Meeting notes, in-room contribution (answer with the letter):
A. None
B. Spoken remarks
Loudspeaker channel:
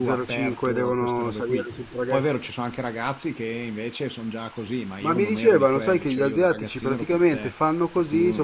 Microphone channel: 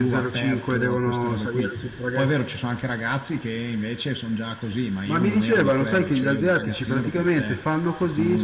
A